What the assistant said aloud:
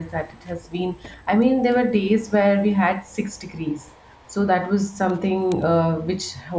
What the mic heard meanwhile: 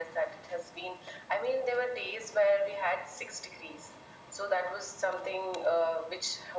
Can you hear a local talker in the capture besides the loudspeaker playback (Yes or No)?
No